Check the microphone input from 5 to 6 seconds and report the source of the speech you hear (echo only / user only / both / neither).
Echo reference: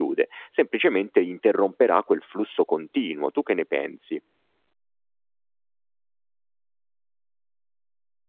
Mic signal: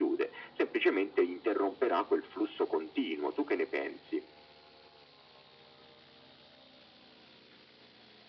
neither